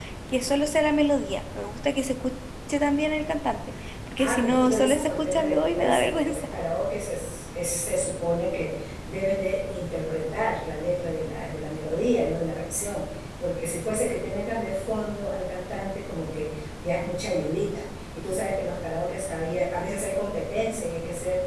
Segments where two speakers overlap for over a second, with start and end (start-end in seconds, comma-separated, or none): 4.2-6.4